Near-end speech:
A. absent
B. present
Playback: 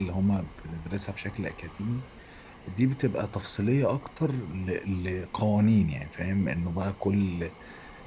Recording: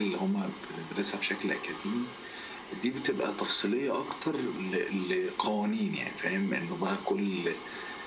A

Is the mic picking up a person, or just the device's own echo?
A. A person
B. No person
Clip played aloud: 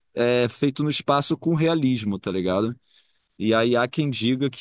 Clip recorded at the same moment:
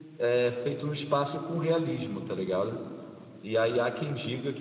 B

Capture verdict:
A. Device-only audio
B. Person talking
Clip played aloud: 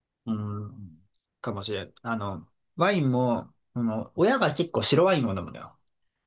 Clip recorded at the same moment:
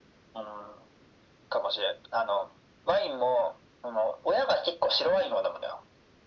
A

